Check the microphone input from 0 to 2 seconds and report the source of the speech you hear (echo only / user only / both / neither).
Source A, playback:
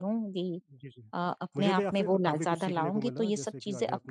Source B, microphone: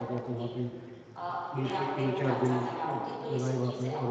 both